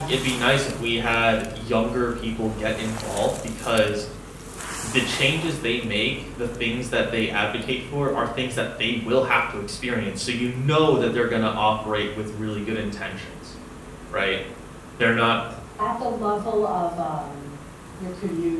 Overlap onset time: none

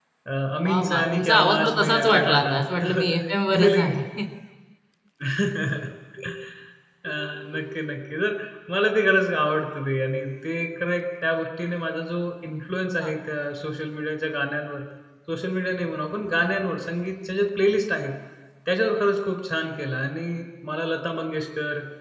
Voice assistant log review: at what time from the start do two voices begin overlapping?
1 s

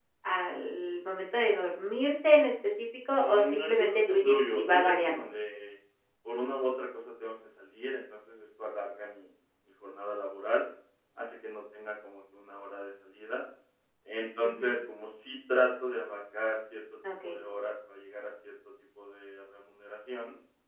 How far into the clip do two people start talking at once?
3 s

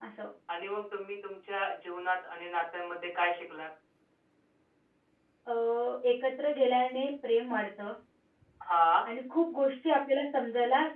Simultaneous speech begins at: none

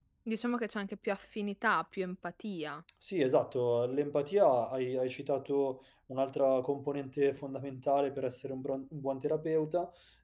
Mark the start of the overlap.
none

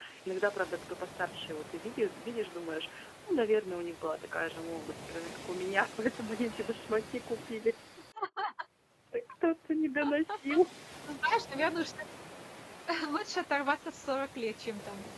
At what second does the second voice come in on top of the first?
none

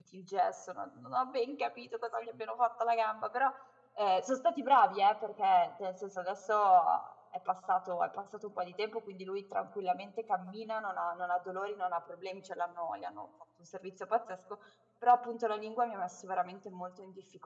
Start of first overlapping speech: none

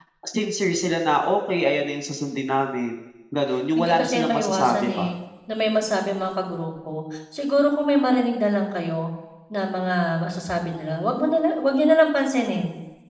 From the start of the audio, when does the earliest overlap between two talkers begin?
4 s

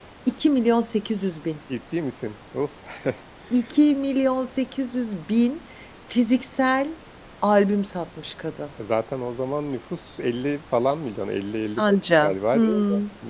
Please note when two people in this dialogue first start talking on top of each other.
12 s

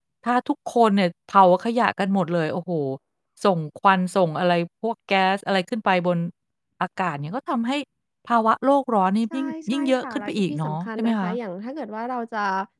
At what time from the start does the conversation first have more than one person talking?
9 s

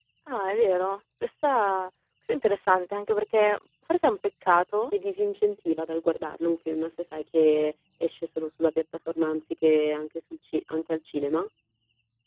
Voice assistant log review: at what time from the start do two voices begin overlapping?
none

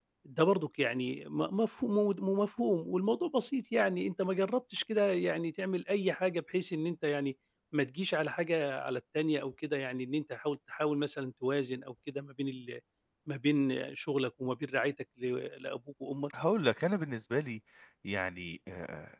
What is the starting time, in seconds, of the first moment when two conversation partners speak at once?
none

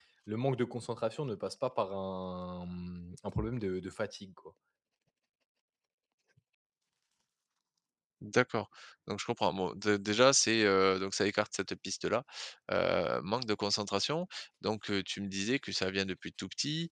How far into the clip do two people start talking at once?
none

